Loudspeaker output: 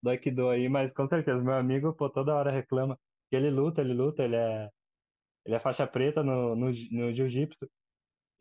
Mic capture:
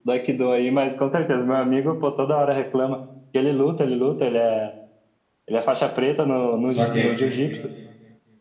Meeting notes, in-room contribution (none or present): present